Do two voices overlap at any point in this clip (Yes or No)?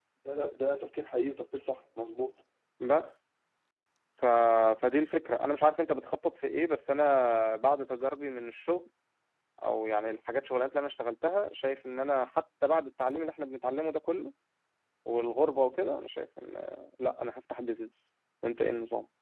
No